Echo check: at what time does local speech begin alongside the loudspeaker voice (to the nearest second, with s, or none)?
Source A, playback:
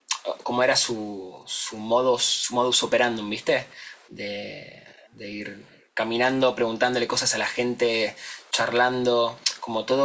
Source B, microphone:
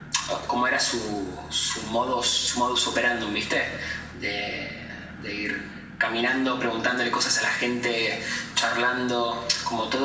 none